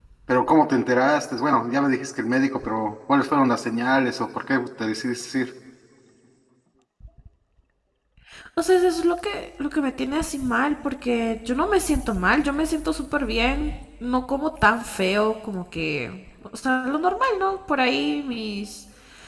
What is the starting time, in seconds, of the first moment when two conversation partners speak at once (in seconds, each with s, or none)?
none